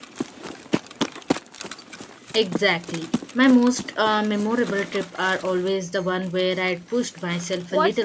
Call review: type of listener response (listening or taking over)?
taking over